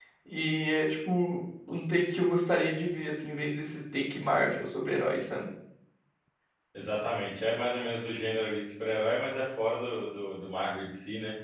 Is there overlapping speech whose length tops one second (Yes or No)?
No